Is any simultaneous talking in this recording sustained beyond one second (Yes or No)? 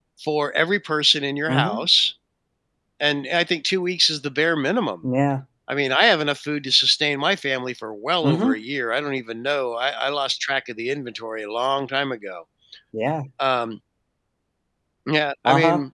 No